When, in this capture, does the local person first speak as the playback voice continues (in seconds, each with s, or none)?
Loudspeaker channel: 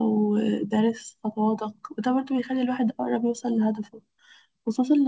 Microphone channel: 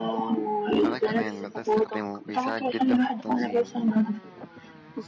0.8 s